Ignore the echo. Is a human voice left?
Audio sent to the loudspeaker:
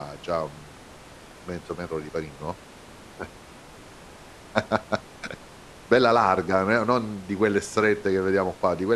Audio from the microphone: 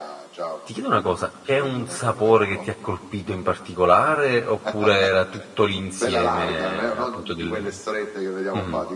Yes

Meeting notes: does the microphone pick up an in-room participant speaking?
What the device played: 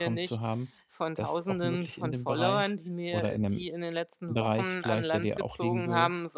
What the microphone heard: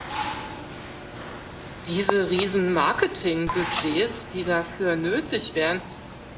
Yes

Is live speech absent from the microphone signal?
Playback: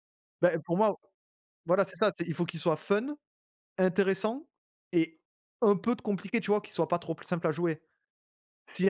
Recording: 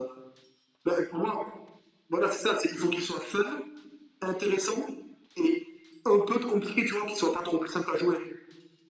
Yes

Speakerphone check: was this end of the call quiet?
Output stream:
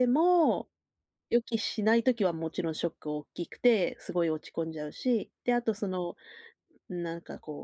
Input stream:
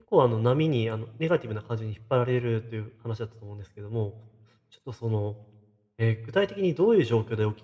No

